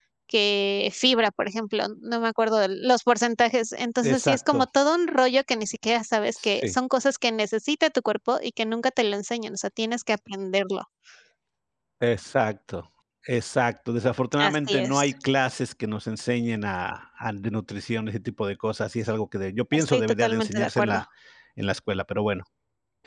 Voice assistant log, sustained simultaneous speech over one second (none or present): present